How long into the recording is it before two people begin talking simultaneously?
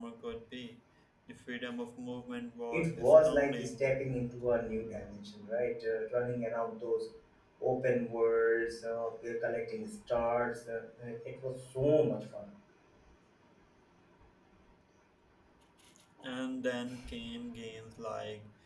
3 s

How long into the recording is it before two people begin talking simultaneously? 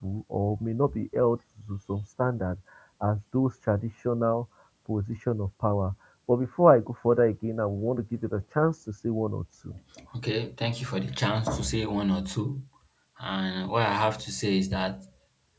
none

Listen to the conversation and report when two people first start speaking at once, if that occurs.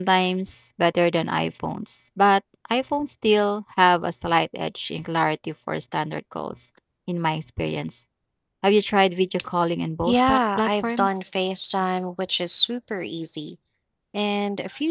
10 s

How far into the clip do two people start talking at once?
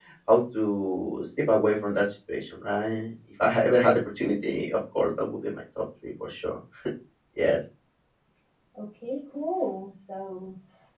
none

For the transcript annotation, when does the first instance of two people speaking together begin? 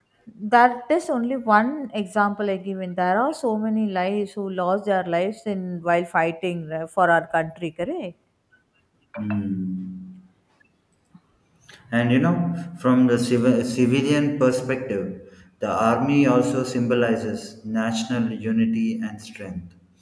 none

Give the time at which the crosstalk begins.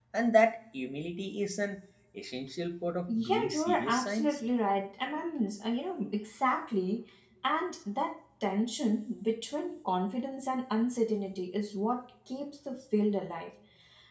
3 s

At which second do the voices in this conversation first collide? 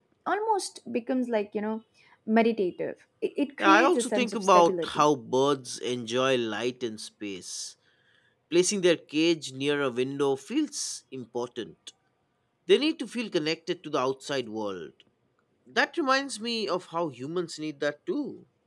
4 s

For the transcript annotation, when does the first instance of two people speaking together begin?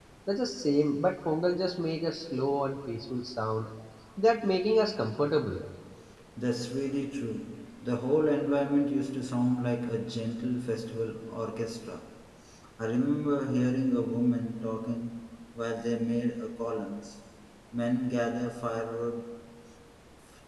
none

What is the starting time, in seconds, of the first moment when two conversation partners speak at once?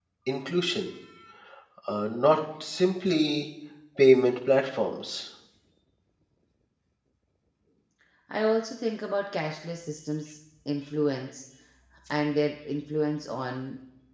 none

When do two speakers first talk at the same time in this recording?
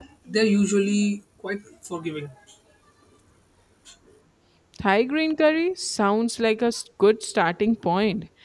none

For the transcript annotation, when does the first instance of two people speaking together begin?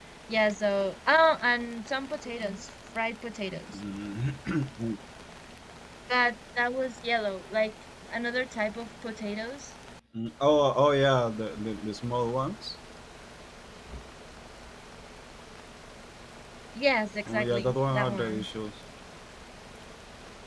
17 s

